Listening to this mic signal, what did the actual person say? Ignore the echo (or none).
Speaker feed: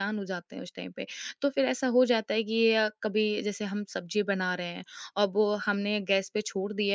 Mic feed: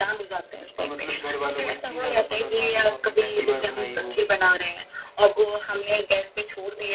और मतलब घर वालों को इतनी ज़्यादा पसंद आ गई वो आपने पहली बार बनाई हो?